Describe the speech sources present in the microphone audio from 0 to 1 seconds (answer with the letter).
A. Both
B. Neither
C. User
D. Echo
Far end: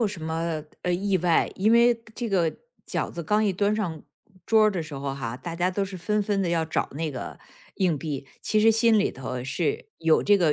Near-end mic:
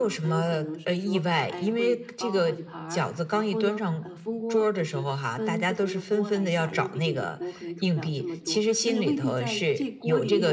A